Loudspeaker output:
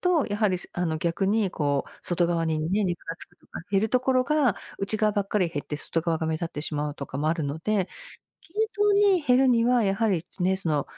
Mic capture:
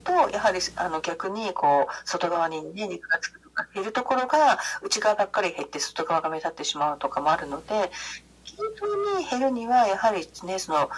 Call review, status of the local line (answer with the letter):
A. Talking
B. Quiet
B